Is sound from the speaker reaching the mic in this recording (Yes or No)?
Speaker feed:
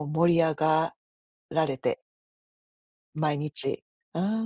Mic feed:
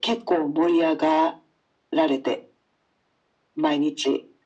Yes